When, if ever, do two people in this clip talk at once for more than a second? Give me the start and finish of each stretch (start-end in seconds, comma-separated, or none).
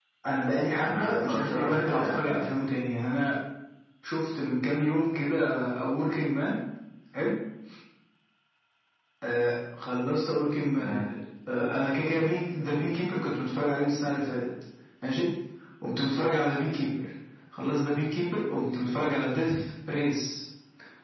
0.7-2.4